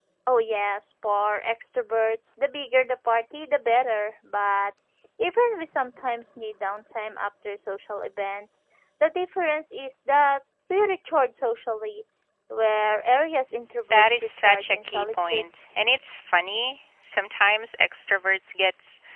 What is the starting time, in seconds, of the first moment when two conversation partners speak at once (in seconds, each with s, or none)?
13.9 s